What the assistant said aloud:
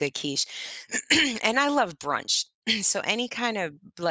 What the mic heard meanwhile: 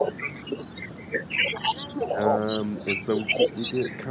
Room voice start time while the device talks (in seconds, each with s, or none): 2.2 s